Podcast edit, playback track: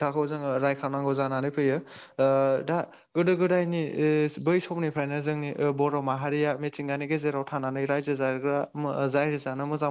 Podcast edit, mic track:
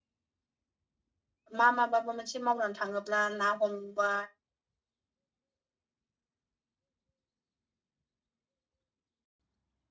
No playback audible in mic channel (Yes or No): Yes